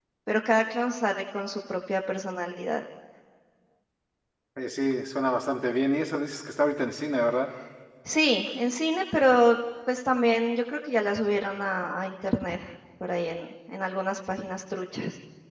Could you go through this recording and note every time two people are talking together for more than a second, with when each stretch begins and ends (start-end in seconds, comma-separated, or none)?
none